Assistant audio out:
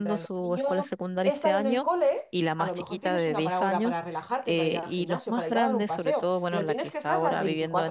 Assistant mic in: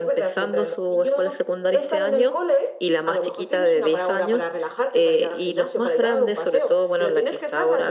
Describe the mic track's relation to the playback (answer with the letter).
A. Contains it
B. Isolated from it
A